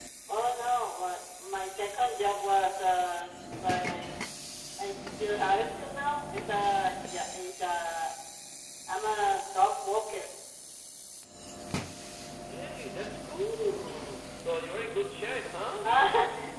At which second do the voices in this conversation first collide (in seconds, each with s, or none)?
none